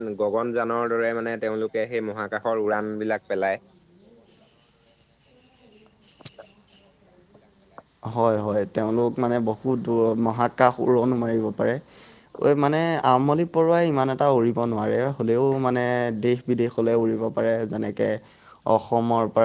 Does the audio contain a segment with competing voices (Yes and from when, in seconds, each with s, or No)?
No